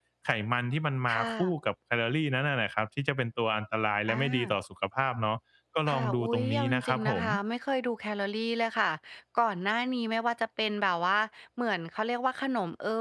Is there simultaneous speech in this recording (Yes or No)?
Yes